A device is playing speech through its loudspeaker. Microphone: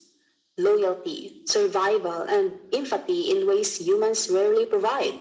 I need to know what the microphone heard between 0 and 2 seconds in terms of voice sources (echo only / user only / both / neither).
echo only